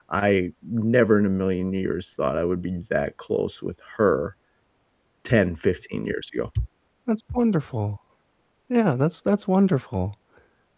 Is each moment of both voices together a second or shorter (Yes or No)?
Yes